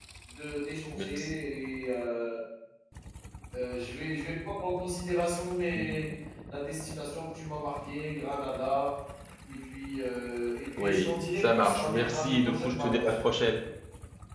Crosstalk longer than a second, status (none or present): present